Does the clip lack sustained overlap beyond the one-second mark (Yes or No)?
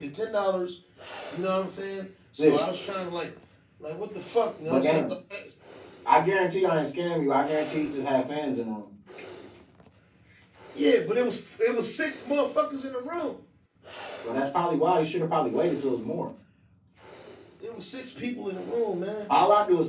Yes